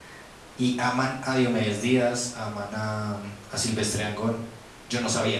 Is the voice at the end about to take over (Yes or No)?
Yes